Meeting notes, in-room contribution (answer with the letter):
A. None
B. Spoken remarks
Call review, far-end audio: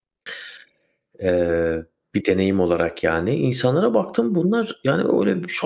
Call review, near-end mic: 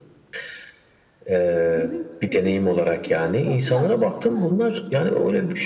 B